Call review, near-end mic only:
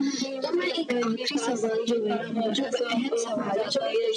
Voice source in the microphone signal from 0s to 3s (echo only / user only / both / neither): echo only